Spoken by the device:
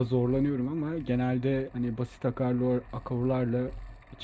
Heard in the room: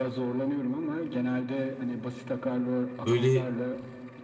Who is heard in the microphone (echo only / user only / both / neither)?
both